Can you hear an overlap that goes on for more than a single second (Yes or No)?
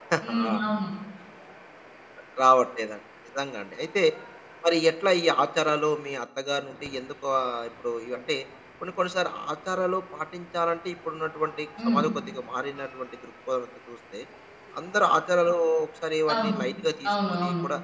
No